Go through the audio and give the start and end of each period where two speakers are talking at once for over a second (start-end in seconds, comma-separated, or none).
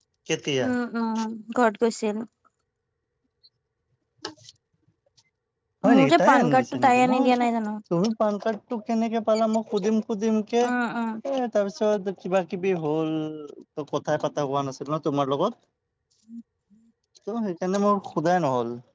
5.9-7.5